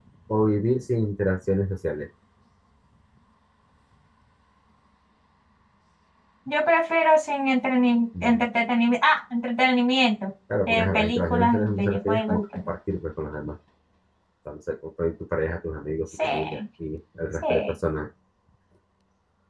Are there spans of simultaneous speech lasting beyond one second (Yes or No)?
Yes